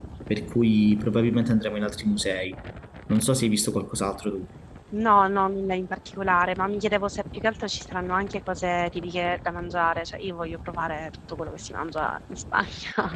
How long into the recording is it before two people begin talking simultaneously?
none

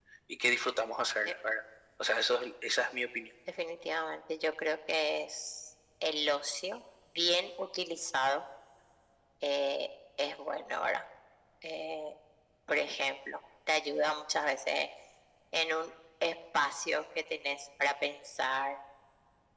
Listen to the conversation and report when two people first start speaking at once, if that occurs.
none

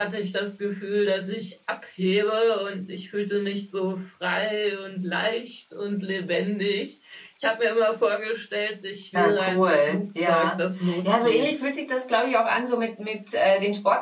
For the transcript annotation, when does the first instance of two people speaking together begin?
9.2 s

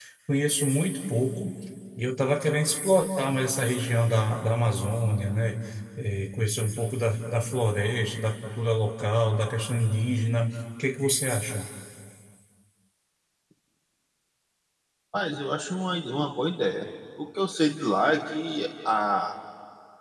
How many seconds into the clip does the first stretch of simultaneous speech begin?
none

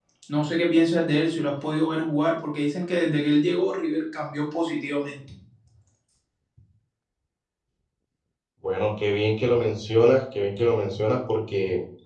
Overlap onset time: none

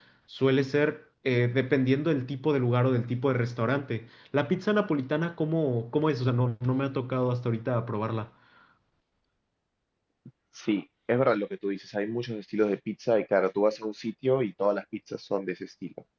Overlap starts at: none

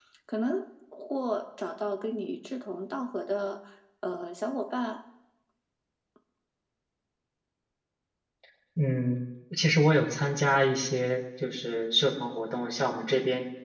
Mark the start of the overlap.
none

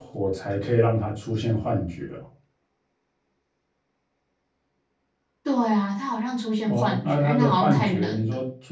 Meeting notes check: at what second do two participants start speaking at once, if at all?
6.7 s

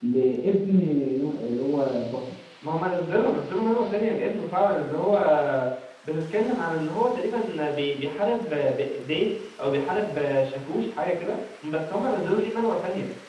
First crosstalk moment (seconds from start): none

